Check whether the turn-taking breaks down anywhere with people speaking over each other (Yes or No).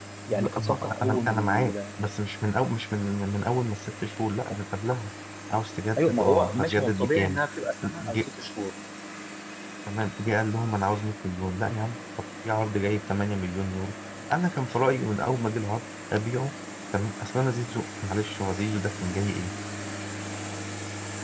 Yes